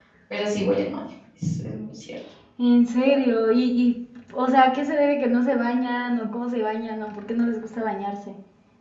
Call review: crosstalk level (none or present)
none